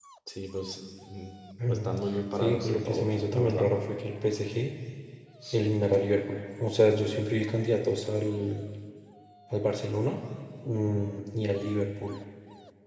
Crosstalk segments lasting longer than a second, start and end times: 2.4-3.7

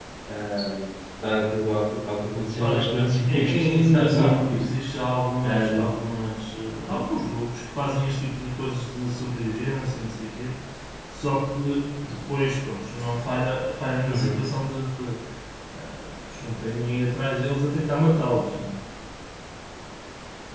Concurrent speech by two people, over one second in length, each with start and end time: 3.3-4.7

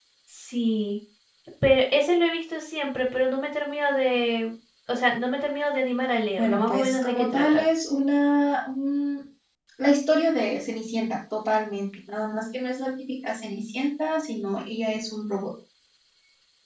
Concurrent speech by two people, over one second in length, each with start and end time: 6.4-7.6

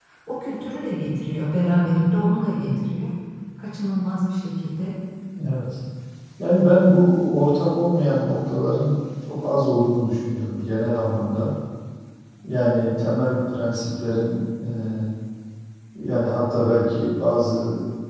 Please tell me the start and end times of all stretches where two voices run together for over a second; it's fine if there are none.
none

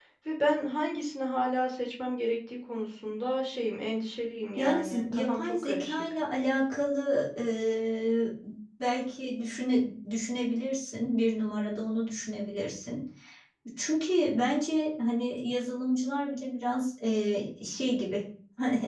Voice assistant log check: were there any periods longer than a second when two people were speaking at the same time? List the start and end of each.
4.6-6.0

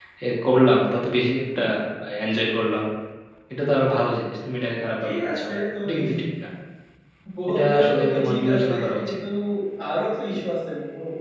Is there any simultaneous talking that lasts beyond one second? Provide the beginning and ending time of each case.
7.5-9.2

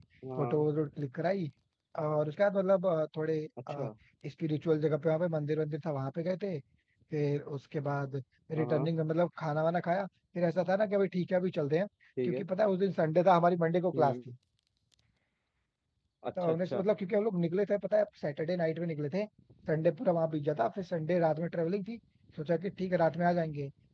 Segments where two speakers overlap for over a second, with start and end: none

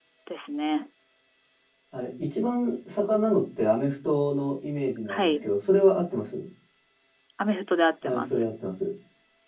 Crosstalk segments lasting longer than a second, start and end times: none

